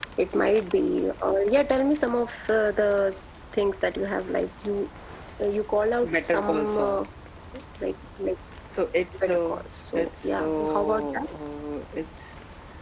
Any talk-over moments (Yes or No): Yes